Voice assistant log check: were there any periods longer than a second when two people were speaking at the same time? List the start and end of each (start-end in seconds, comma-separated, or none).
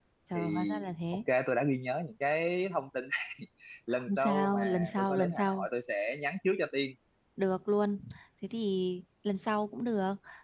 3.9-5.7